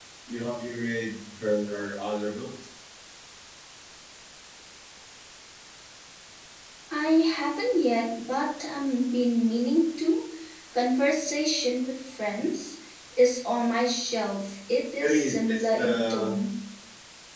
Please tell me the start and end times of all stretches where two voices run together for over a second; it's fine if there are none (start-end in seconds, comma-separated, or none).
15.0-16.3